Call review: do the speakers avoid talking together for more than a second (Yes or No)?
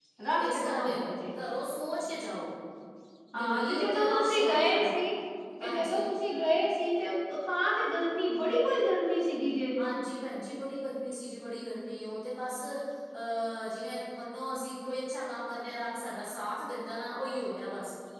No